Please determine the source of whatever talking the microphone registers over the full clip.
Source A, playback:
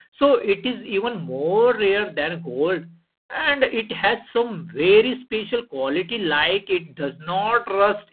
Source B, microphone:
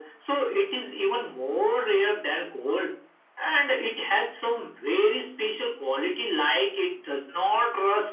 echo only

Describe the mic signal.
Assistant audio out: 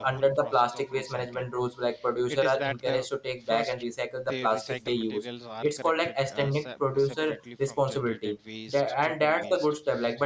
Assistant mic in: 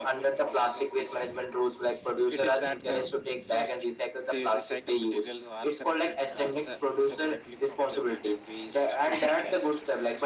echo only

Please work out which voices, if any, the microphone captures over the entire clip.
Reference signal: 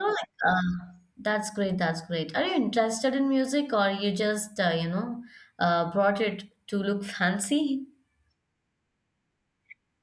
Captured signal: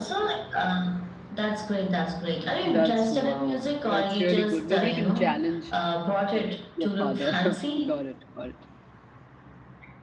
both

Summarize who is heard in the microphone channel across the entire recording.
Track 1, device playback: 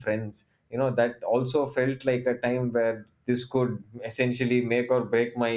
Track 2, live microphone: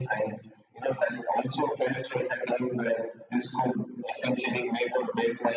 echo only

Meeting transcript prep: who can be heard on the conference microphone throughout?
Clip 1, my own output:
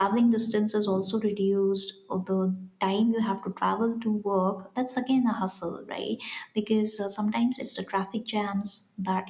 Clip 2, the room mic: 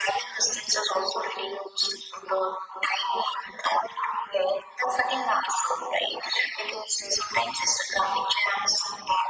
echo only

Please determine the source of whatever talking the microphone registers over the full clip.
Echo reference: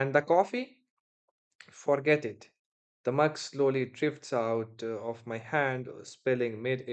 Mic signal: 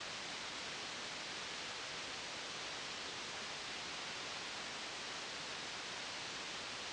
neither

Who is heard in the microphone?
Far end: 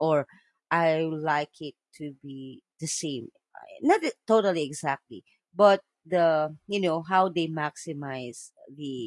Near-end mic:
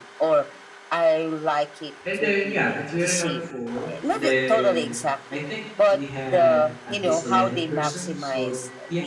both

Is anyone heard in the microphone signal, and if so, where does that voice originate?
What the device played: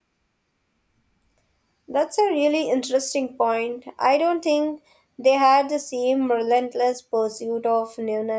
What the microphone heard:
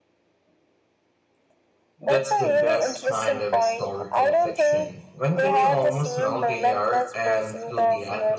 both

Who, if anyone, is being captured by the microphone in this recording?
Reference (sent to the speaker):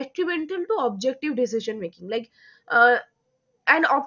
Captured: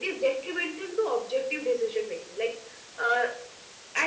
echo only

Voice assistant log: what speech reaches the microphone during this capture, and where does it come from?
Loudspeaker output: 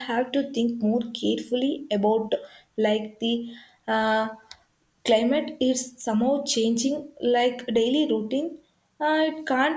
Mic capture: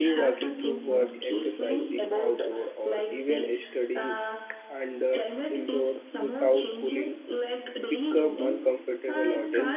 both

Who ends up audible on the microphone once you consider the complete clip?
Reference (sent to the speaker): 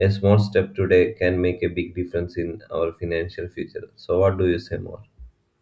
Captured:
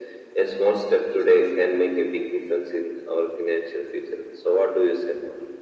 both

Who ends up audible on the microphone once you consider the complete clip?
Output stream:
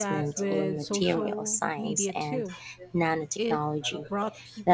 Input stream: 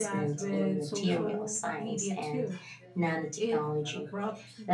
echo only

